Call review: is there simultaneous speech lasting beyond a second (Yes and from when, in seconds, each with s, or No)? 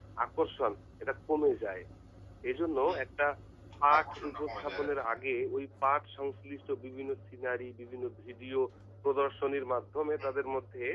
Yes, from 4.0 s